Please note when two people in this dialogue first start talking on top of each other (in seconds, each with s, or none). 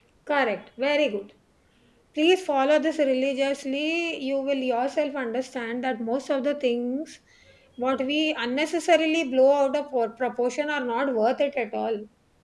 none